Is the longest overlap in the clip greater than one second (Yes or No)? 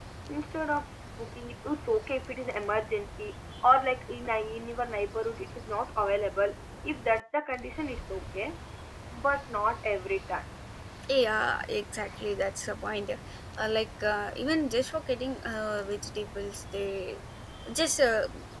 No